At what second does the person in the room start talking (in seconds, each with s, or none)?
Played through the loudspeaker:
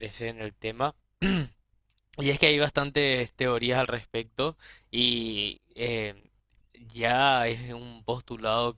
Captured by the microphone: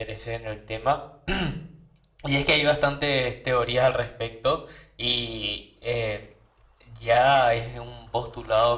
none